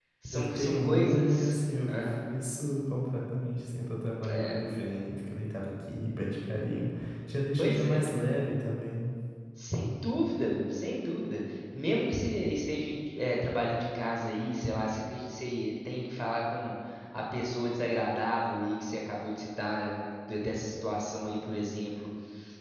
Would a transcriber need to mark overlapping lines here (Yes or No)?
Yes